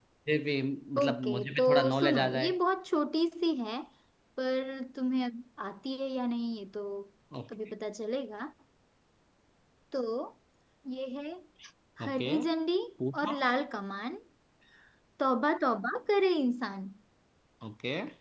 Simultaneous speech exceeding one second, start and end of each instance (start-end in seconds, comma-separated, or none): 1.0-2.5